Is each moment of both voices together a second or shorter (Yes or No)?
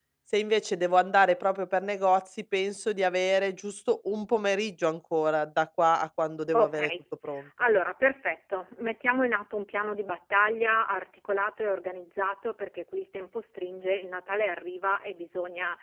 Yes